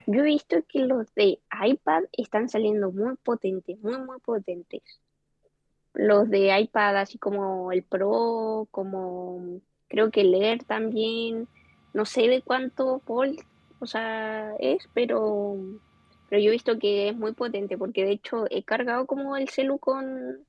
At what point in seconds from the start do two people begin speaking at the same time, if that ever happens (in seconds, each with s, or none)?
none